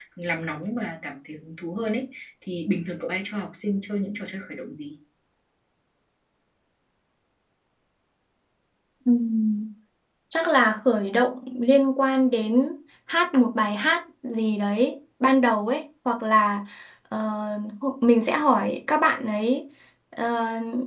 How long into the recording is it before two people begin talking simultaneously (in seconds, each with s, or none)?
none